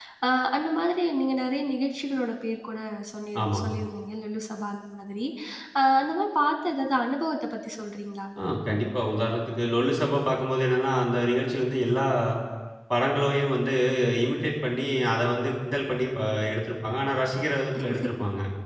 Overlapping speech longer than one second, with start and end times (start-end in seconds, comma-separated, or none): none